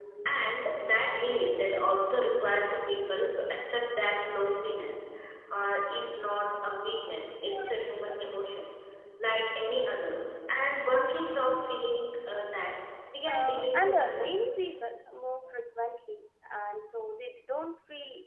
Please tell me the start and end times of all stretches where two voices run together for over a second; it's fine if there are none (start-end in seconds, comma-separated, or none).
13.3-14.5